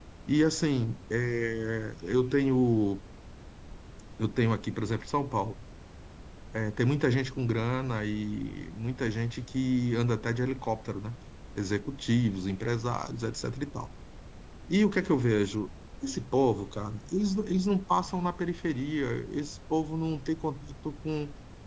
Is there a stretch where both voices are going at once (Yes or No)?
No